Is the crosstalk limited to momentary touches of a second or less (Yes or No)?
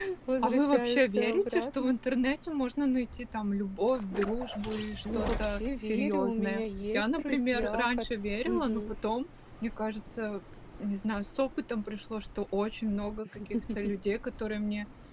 No